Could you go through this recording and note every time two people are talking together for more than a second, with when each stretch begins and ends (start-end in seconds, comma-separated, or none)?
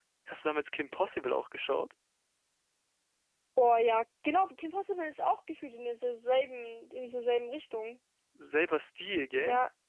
none